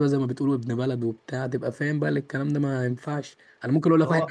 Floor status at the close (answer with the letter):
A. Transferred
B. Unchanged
B